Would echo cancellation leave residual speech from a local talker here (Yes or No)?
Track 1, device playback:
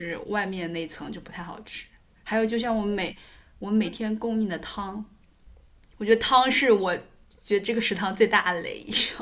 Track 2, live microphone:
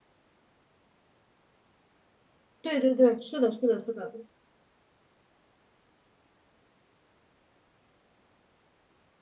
Yes